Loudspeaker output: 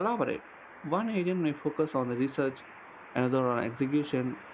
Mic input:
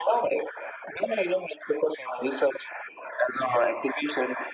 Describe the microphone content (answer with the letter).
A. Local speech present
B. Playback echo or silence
B